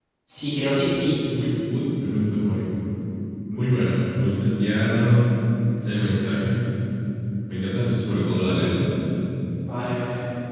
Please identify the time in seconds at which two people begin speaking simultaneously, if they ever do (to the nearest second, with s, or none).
none